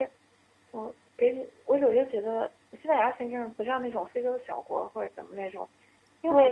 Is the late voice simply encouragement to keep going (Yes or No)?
No